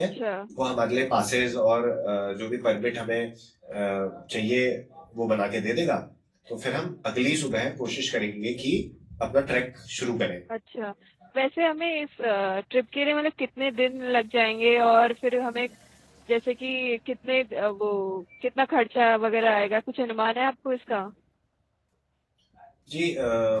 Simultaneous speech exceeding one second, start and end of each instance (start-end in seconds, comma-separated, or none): none